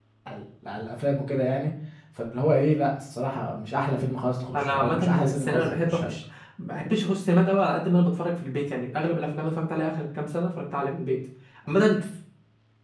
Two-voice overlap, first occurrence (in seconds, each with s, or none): 4.5 s